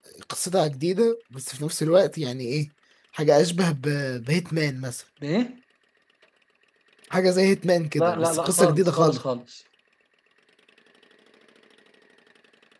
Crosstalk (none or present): present